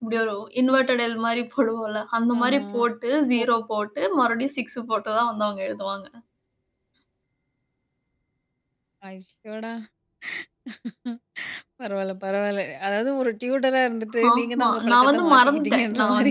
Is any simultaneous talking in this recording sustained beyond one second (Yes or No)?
Yes